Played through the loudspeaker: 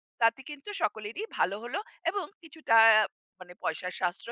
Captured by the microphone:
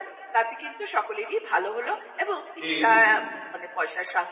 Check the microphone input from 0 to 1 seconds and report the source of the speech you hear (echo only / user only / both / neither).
echo only